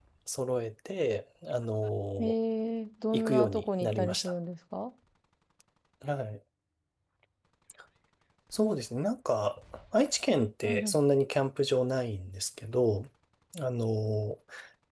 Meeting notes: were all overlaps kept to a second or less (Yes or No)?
No